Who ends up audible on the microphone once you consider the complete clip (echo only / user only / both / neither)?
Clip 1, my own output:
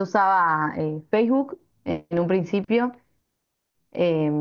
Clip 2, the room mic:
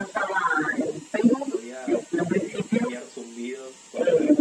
both